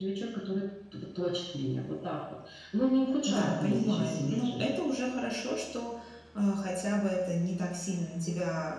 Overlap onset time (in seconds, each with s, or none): 3.3 s